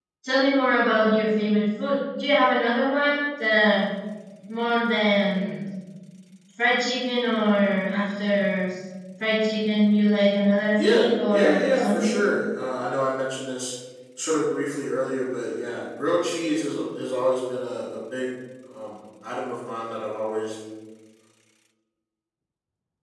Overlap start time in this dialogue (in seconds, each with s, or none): 10.8 s